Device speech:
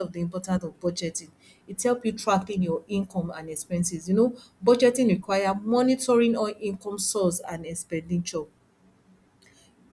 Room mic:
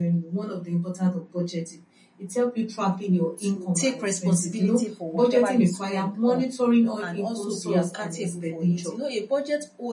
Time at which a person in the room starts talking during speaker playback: 3 s

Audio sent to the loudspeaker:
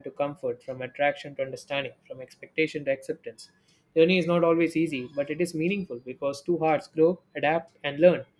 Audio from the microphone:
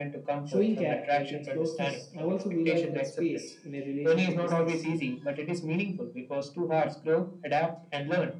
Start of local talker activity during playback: 0 s

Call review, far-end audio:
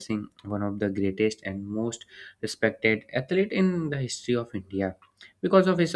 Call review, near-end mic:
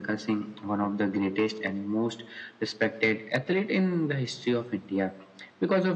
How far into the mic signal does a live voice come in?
none

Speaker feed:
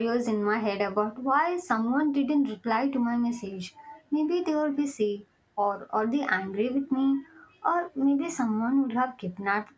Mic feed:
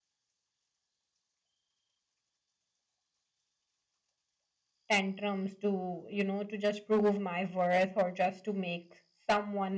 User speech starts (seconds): 5 s

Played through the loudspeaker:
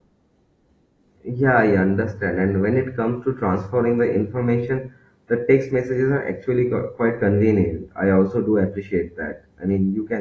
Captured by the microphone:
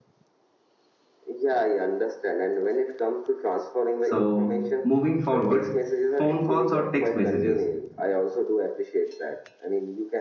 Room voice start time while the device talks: 4 s

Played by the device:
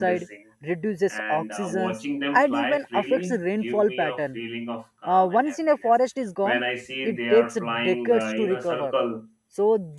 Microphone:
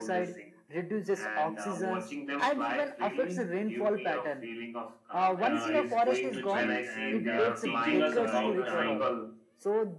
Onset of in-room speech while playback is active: 5 s

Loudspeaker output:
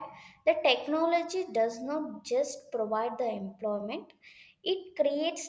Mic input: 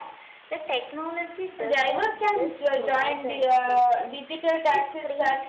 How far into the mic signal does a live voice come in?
2 s

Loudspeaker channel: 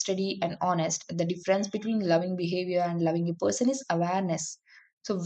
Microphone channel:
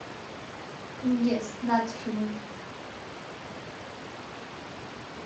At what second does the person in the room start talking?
1 s

